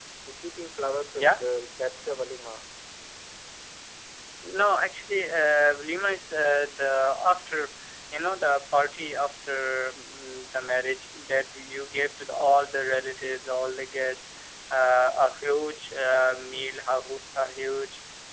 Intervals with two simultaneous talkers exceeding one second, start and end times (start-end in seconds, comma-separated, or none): none